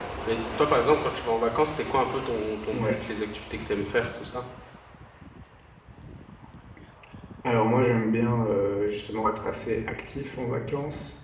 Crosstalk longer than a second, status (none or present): none